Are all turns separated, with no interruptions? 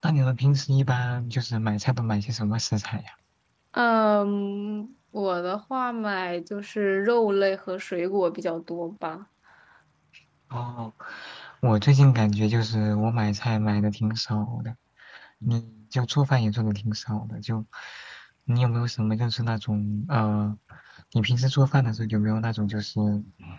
Yes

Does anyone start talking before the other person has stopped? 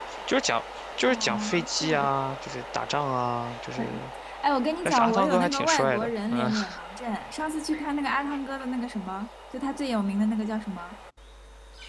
Yes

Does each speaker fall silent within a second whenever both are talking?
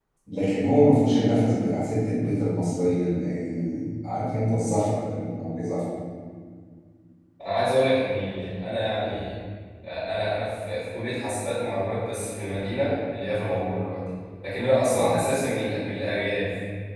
Yes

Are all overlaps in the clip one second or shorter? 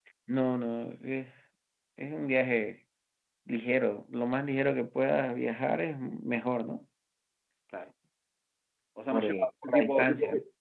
No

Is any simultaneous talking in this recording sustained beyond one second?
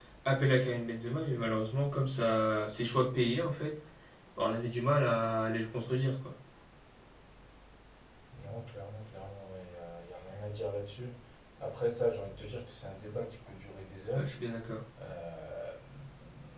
No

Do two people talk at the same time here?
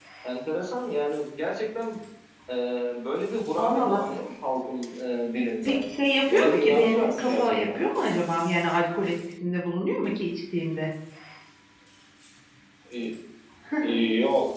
Yes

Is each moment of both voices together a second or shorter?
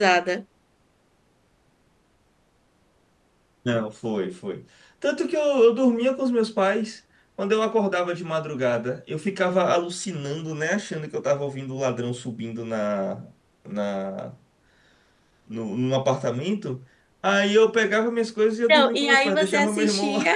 No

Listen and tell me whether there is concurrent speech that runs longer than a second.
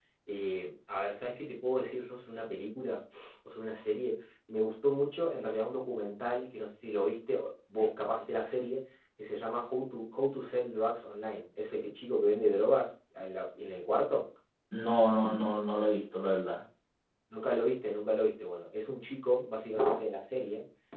No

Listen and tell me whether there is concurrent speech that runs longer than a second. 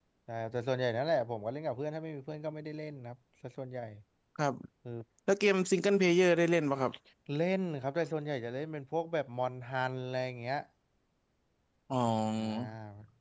No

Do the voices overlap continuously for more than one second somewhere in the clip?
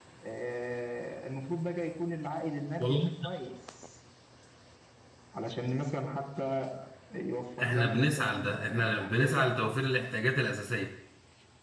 Yes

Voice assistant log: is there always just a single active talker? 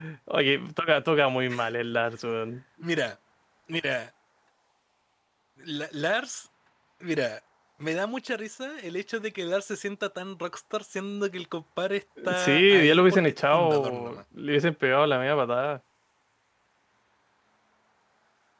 No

